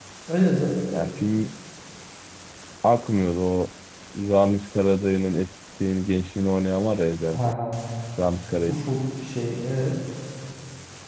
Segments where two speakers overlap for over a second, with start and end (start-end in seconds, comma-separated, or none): none